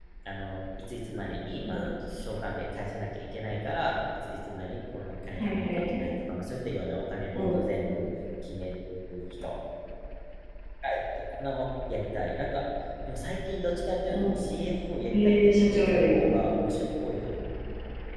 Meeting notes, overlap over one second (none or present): present